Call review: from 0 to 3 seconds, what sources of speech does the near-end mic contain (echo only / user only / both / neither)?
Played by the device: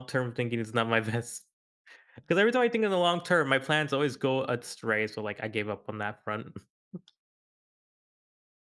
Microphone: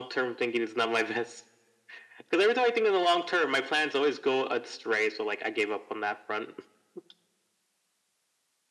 echo only